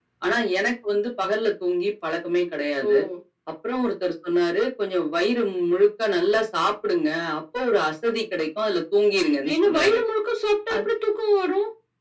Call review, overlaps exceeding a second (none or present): none